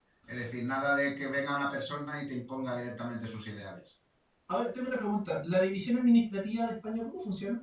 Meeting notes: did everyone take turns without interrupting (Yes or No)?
Yes